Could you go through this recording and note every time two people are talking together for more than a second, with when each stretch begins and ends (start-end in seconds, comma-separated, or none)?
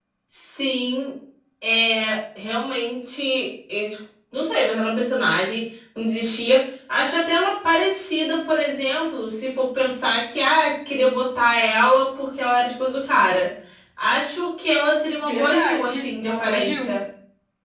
15.2-16.9